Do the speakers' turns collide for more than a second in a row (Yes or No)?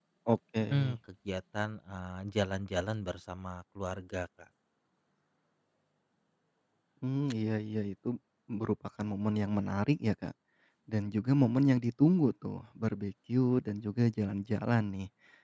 No